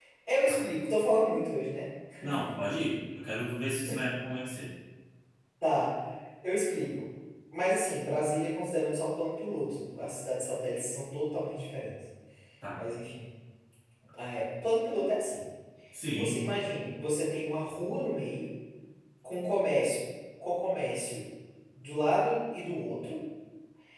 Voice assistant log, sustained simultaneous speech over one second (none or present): none